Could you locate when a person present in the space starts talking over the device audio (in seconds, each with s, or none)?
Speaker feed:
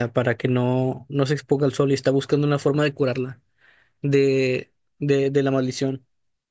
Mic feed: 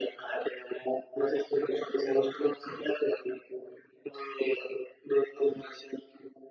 none